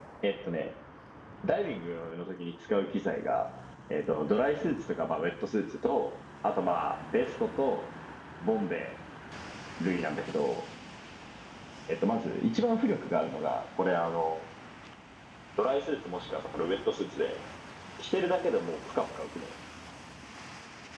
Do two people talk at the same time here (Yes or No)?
No